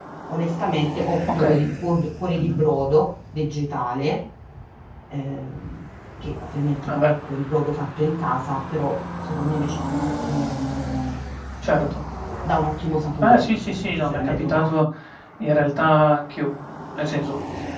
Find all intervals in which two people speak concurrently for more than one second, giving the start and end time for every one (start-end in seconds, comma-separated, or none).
13.2-14.8